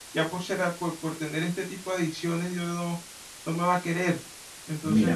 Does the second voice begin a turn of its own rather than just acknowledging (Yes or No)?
Yes